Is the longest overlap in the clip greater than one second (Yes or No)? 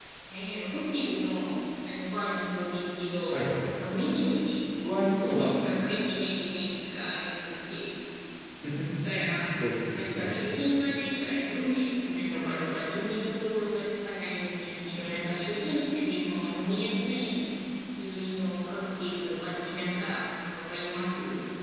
No